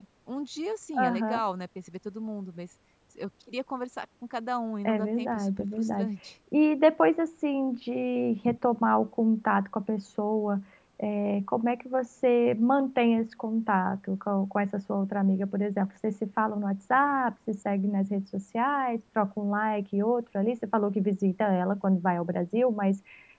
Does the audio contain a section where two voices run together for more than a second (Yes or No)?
Yes